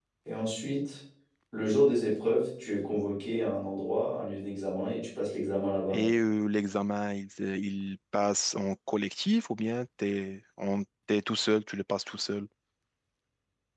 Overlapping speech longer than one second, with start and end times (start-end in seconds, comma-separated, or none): none